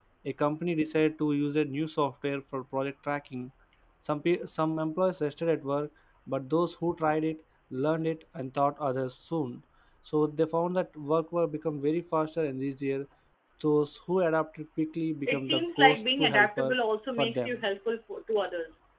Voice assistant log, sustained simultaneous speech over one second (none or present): present